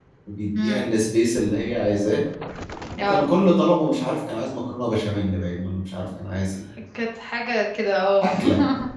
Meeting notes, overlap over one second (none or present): none